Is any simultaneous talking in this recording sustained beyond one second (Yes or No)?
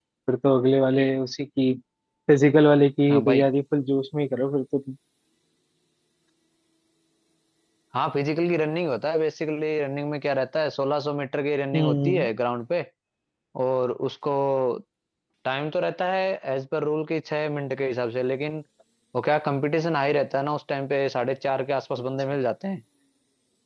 No